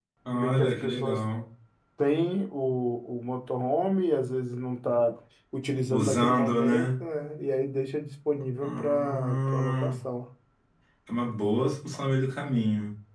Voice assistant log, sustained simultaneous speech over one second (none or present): present